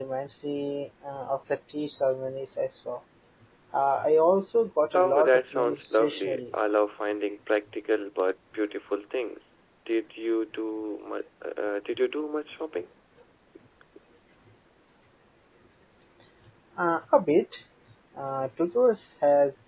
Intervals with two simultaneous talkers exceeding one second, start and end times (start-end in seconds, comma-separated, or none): 4.9-6.4